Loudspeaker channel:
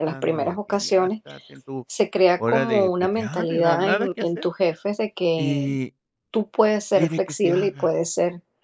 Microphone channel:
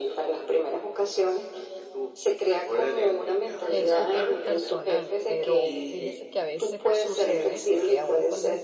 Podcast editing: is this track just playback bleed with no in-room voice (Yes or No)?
No